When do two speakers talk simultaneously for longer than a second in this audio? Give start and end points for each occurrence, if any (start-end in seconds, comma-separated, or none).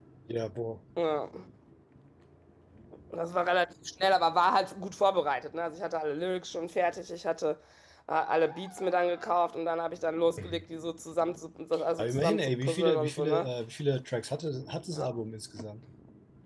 12.0-13.5